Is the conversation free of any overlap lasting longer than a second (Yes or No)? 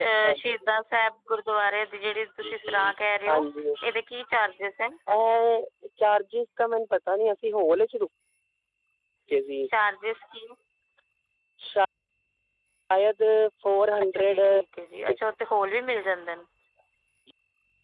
Yes